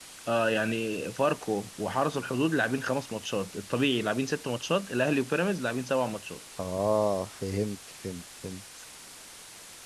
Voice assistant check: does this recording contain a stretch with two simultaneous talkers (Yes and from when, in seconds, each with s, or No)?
No